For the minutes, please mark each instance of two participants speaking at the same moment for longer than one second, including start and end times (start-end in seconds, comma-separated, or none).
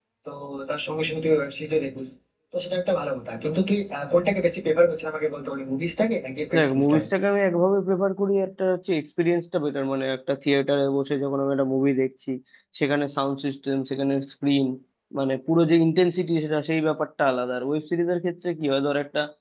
none